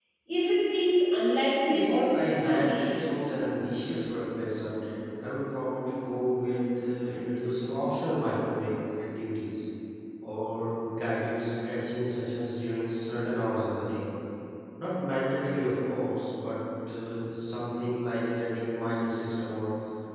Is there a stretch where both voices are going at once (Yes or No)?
Yes